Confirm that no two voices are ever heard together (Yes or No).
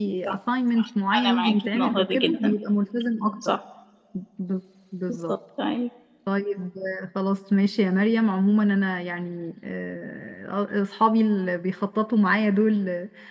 No